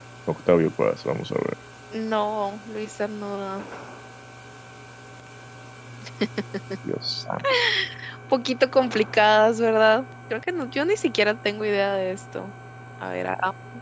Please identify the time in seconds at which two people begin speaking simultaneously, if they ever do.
none

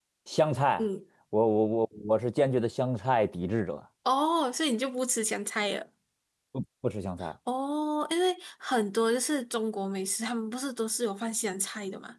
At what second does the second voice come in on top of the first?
none

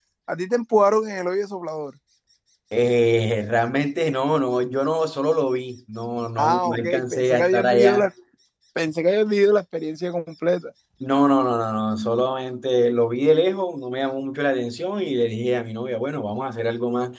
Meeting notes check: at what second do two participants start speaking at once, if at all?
6.4 s

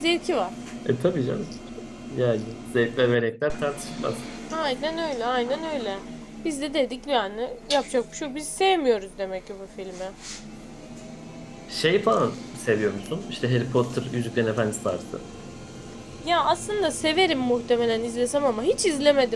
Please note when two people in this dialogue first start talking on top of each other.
none

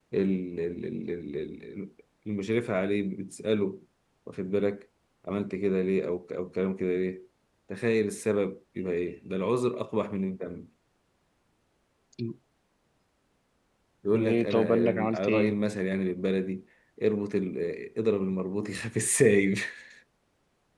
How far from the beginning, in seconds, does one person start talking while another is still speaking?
14.1 s

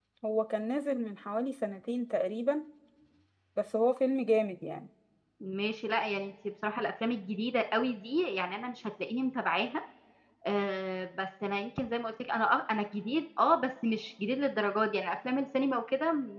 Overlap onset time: none

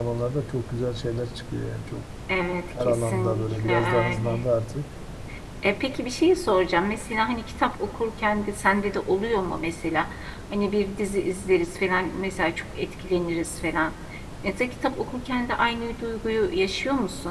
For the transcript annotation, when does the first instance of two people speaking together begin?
2.8 s

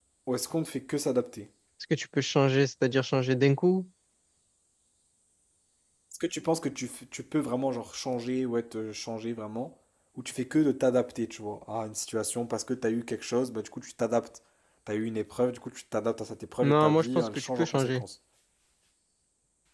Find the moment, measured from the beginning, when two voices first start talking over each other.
16.6 s

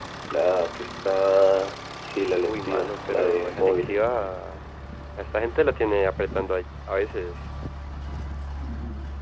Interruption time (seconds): 2.5 s

